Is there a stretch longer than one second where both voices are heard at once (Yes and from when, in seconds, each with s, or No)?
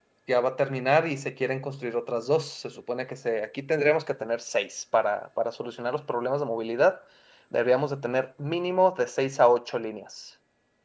No